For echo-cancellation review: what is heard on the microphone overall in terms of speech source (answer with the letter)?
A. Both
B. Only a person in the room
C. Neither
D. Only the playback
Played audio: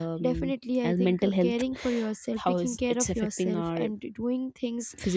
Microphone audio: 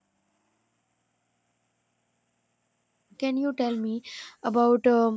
B